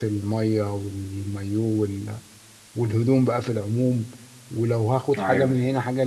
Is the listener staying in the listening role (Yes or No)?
Yes